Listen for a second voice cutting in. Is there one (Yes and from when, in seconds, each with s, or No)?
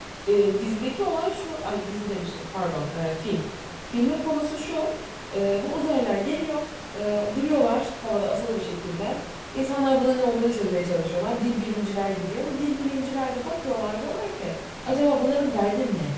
No